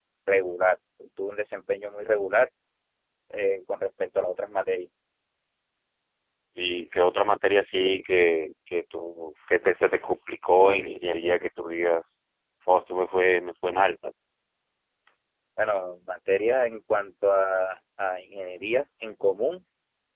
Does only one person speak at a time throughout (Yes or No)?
Yes